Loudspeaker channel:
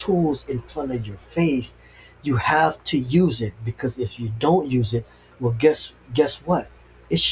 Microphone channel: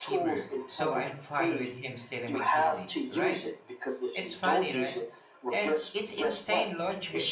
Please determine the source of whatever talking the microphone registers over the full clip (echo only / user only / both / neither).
both